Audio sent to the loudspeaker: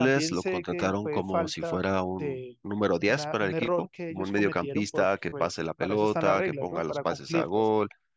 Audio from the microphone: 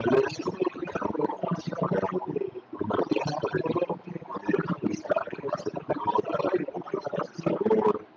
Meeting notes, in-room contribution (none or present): none